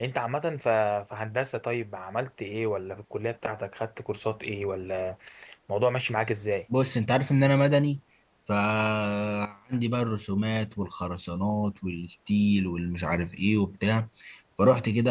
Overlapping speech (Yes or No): No